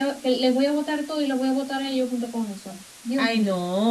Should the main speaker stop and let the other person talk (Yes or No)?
Yes